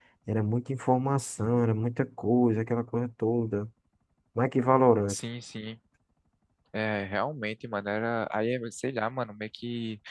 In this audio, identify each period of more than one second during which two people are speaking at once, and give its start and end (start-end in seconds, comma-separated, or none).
none